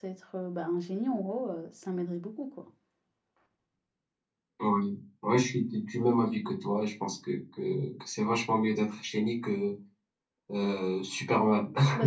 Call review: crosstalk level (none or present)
none